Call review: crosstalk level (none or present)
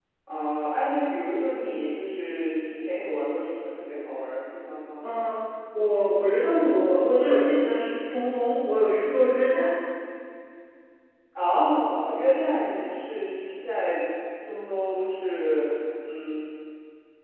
none